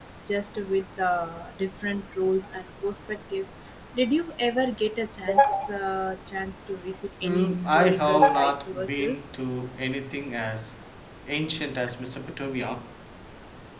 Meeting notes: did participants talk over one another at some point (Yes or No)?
Yes